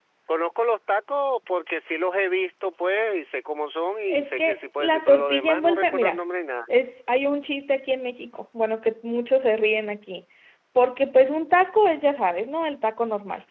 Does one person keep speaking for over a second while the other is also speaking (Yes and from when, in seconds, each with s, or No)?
Yes, from 4.1 s